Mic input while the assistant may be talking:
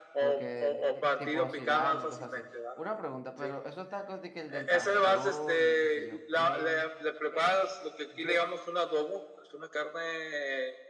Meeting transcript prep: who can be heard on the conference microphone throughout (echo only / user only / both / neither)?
both